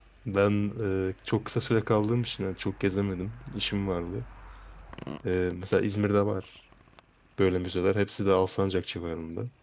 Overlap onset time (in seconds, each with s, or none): none